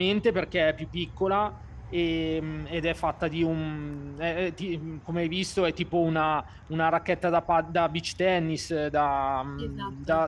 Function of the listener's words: listening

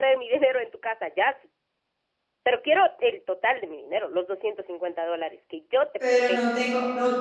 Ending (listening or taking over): taking over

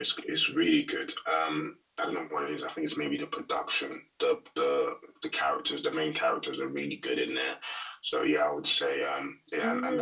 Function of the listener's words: taking over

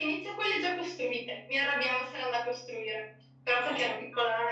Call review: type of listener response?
listening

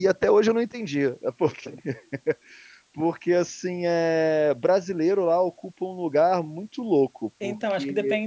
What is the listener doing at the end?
taking over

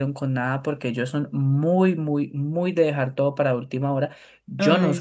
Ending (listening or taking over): listening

